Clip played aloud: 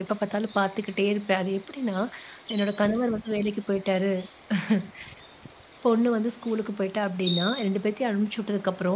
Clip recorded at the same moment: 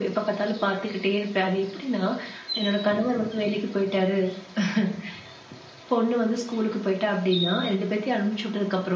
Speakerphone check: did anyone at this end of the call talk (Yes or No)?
No